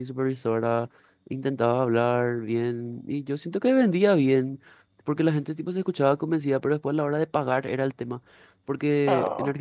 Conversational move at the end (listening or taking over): listening